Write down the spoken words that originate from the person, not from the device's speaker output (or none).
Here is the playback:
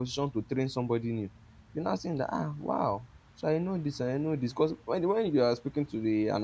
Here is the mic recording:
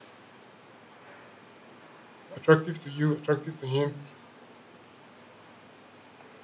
attractive to you, attractive to him.